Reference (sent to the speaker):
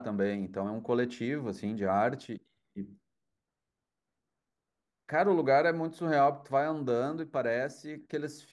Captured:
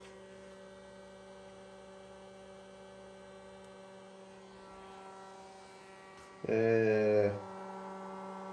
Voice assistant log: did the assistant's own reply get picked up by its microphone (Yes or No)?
No